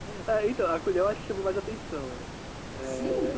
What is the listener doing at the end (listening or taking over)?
taking over